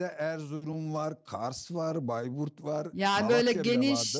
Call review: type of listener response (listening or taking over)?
taking over